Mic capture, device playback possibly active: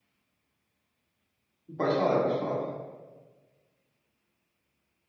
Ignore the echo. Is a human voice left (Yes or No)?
Yes